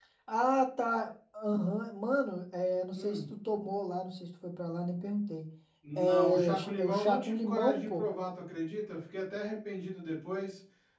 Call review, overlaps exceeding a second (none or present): present